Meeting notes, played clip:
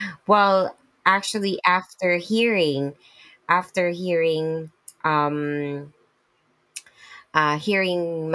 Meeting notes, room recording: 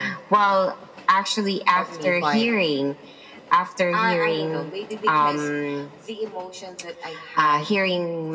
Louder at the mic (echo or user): echo